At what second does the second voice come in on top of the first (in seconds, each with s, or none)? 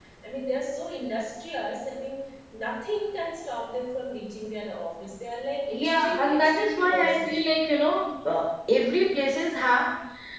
5.7 s